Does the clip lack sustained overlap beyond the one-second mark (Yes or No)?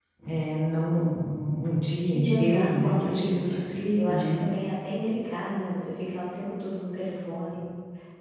No